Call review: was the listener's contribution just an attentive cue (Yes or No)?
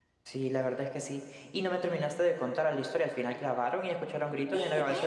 No